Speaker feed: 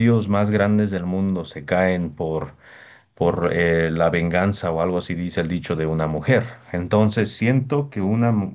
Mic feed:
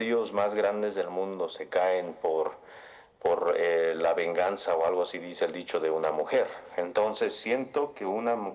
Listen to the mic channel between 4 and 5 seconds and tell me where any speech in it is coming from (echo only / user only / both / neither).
echo only